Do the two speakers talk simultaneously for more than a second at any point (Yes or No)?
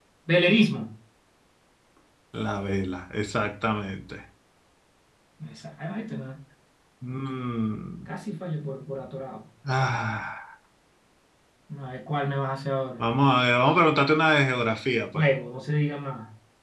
No